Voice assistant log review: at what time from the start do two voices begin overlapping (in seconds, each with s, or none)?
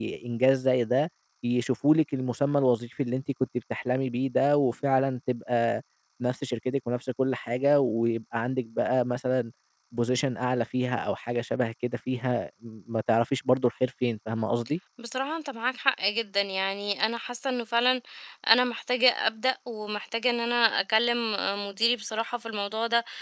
none